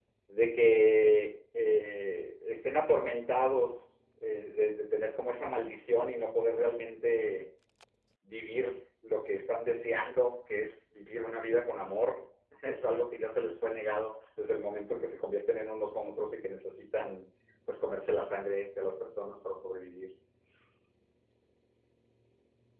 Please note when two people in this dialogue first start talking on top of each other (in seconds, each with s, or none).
none